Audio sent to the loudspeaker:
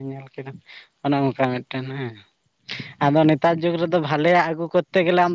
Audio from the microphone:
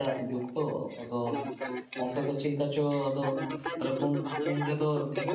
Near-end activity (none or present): present